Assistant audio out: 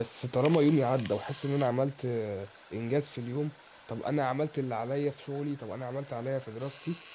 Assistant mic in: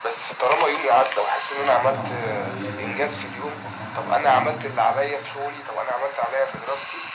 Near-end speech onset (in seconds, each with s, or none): 1.6 s